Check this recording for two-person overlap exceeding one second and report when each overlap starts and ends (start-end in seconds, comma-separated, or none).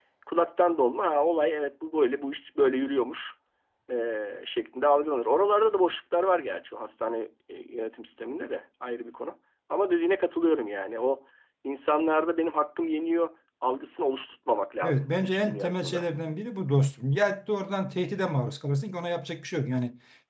14.8-16.1